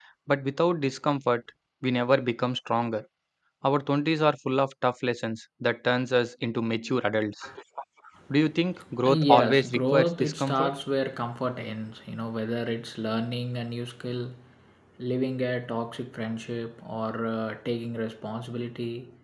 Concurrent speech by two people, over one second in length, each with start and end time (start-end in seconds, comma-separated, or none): 9.1-10.7